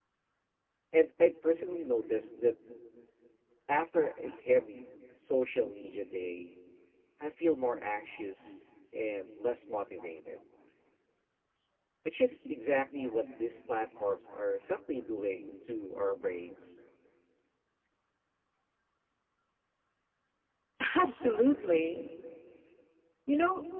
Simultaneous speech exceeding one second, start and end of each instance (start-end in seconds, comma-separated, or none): none